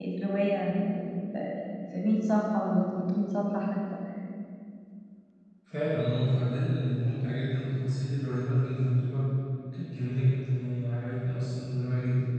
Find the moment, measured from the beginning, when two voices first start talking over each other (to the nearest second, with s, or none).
none